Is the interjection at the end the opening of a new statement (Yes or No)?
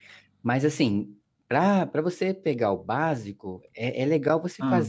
No